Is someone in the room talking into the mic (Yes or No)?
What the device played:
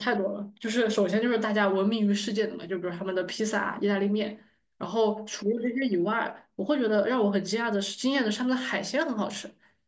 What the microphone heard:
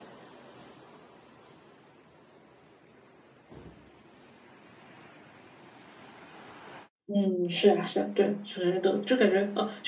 Yes